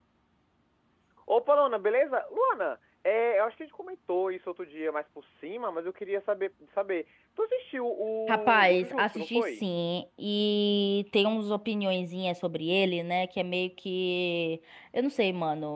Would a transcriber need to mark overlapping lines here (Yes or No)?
Yes